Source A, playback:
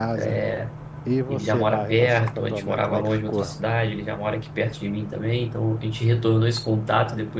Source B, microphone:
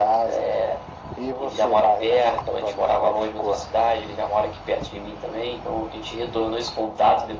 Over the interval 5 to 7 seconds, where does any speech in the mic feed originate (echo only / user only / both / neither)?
echo only